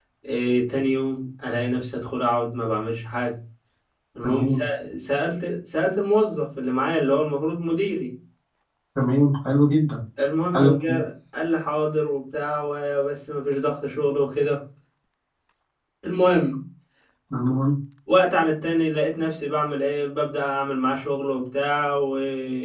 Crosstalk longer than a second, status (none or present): none